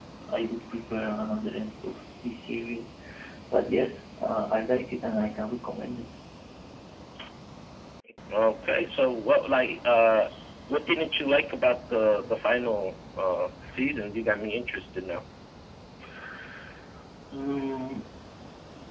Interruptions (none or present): none